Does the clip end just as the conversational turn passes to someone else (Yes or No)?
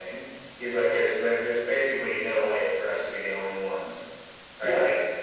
No